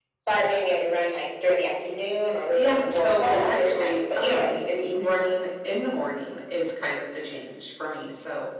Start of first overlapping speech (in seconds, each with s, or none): 2.6 s